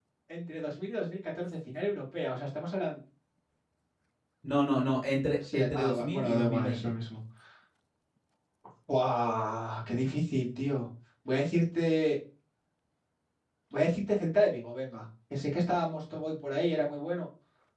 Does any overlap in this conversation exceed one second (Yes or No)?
Yes